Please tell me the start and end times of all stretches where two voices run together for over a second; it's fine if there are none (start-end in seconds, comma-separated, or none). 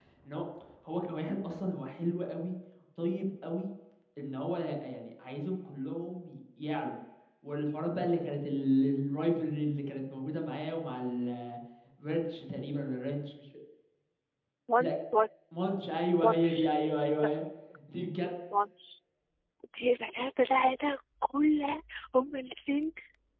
none